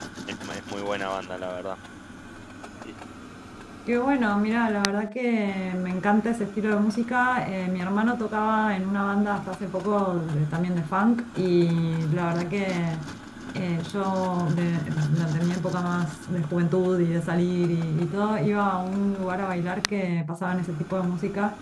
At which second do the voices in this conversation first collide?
none

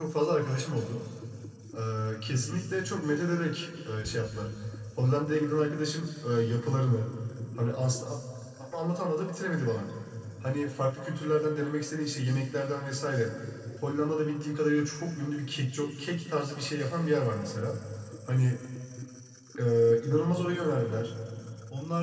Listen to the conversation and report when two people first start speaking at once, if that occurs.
none

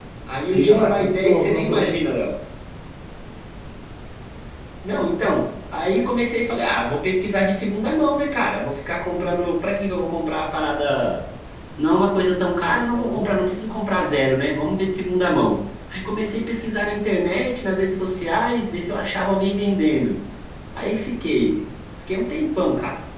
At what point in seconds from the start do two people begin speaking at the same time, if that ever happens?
0.5 s

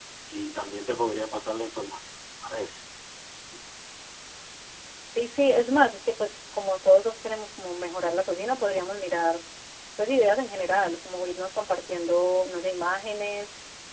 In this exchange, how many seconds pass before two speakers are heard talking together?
none

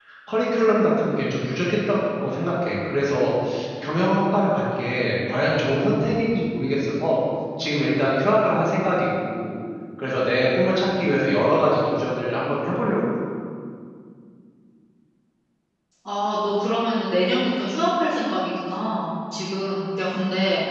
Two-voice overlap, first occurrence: none

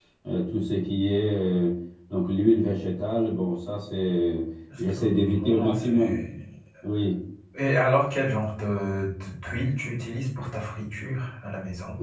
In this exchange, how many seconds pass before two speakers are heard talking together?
4.7 s

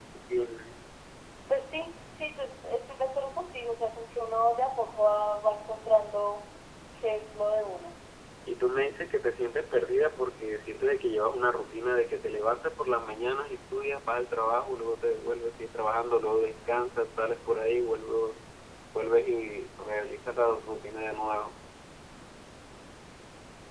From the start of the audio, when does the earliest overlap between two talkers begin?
none

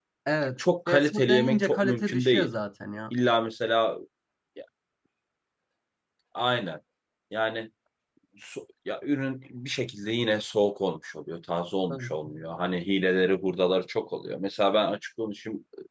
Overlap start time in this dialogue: 0.9 s

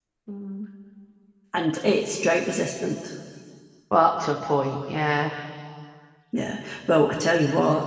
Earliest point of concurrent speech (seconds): none

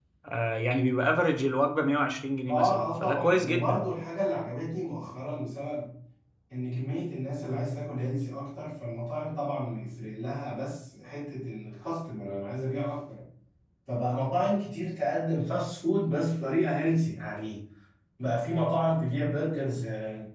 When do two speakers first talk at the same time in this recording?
2.5 s

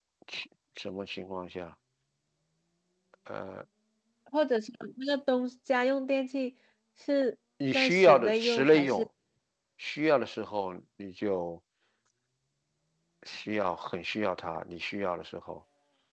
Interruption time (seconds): 7.7 s

